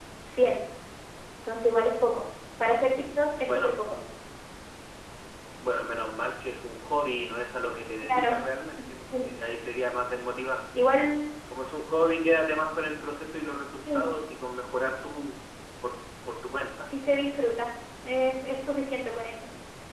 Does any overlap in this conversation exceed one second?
No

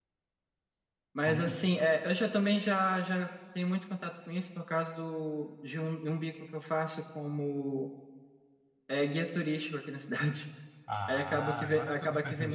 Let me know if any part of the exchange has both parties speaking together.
Yes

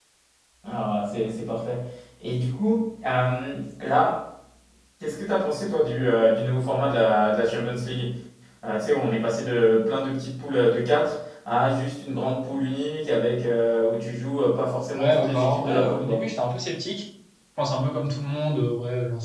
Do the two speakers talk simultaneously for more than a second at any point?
Yes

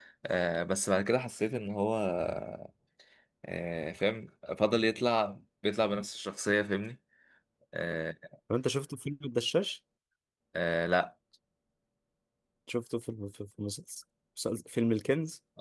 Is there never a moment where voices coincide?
Yes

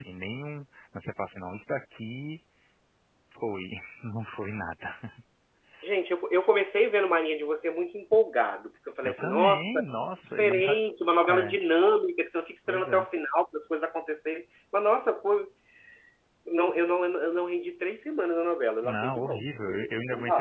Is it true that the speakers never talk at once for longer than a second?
No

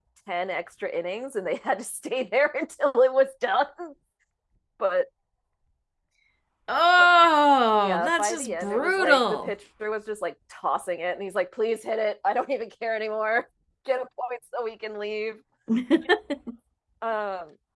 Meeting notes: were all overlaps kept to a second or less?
No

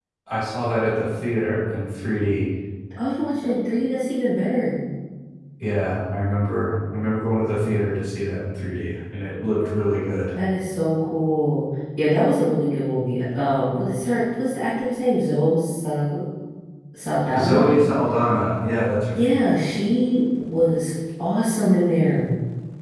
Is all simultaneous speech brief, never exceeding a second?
Yes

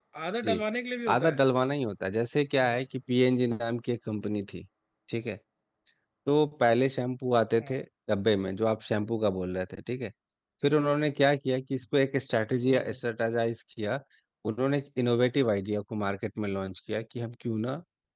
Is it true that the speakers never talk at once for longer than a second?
Yes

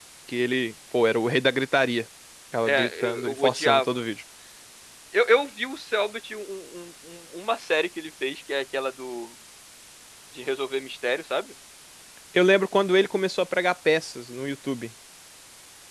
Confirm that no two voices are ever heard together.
No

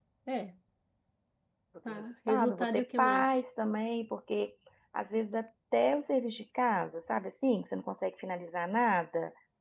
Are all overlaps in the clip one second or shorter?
No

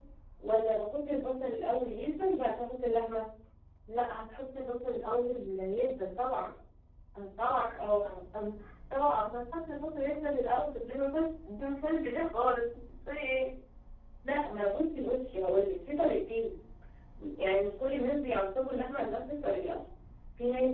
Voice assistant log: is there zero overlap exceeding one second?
Yes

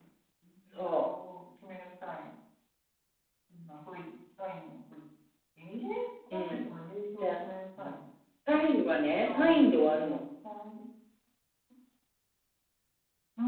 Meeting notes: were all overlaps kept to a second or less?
Yes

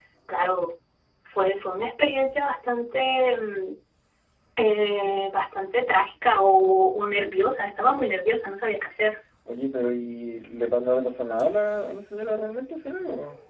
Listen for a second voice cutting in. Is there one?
No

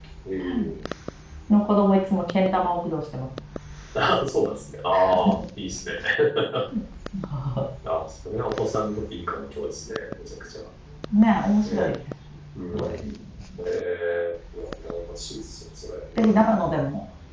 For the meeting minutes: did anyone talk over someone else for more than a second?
No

